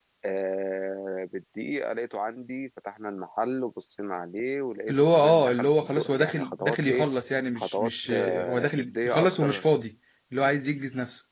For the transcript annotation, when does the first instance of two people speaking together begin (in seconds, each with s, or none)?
4.9 s